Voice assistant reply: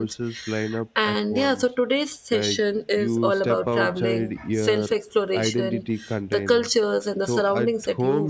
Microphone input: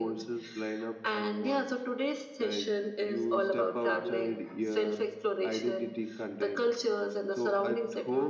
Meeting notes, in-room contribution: none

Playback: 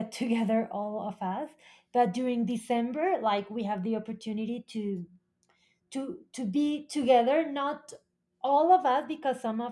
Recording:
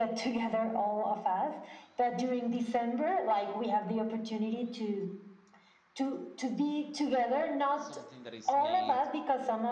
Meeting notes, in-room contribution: present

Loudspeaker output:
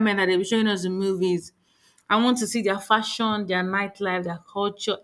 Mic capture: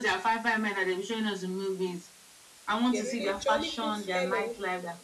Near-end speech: present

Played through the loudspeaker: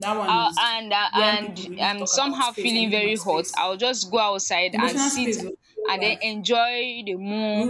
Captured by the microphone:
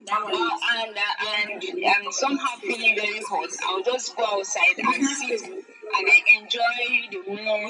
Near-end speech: none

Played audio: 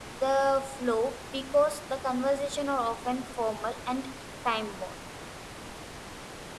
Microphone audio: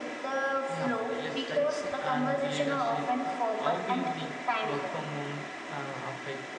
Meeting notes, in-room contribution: present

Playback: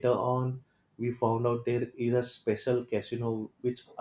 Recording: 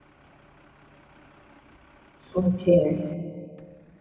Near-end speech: present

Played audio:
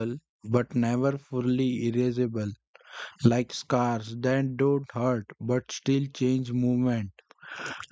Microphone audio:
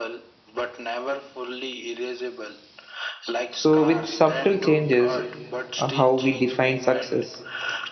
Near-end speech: present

